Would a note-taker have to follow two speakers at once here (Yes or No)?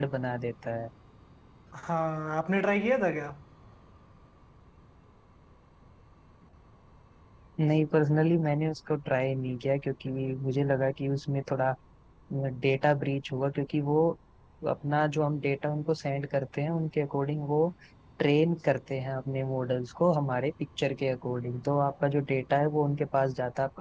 No